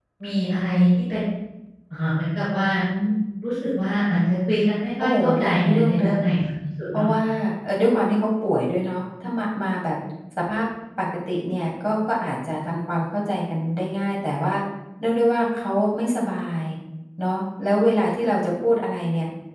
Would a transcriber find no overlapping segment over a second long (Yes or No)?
No